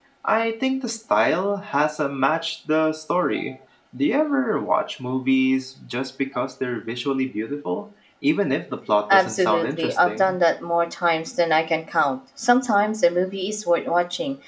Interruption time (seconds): 9 s

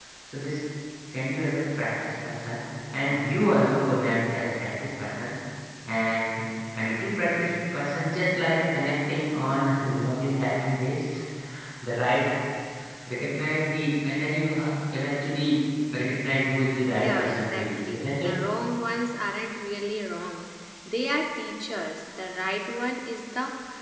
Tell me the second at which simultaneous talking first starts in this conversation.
17 s

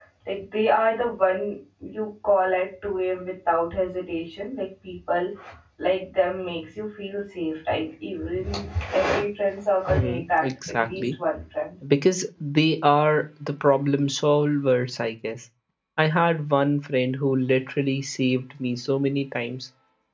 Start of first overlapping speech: 10 s

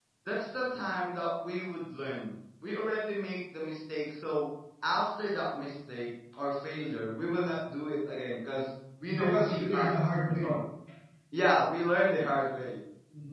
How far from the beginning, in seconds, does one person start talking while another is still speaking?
9 s

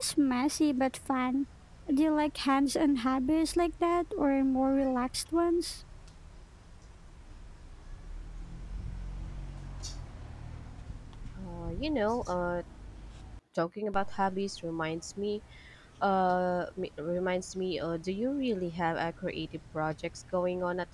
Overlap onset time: none

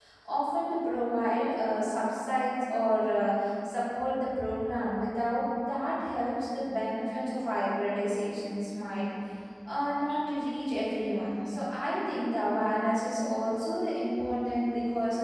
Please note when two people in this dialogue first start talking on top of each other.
none

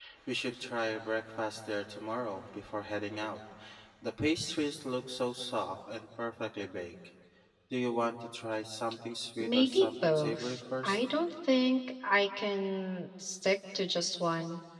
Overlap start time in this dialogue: 9 s

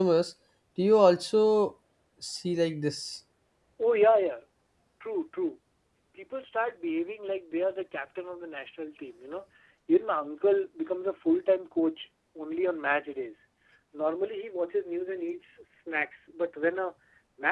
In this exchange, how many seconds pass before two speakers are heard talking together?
none

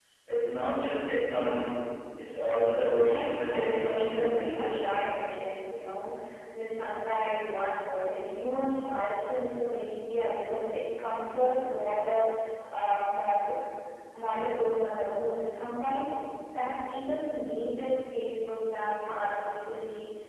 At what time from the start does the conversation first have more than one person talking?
3 s

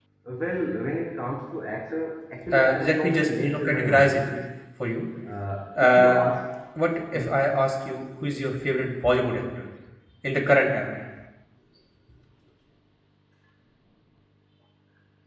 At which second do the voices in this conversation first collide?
3 s

